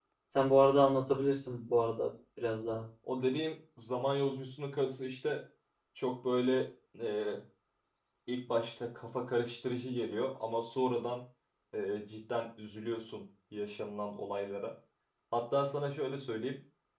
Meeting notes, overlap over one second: none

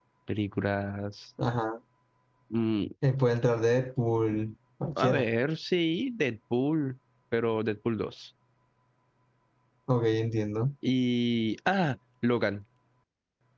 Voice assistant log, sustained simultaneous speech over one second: none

